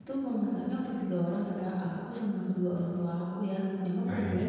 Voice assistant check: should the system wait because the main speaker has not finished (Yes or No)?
Yes